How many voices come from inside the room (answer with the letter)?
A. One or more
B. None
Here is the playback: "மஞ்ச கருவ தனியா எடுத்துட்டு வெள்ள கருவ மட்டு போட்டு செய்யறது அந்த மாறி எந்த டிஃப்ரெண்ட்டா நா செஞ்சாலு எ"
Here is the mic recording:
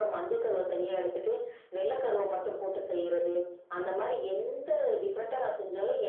B